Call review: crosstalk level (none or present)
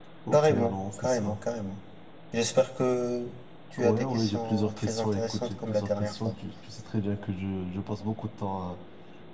present